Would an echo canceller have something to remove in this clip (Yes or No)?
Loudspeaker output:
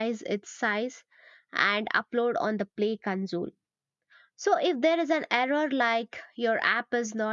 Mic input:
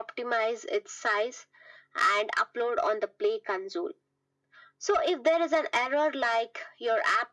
Yes